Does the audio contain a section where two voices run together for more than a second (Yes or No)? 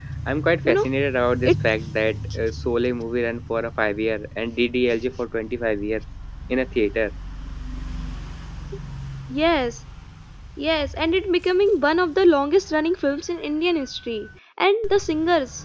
No